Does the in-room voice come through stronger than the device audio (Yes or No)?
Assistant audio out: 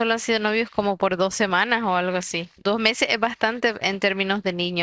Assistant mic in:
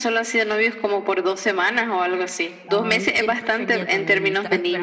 No